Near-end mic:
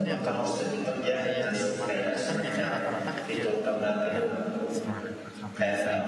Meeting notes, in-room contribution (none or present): present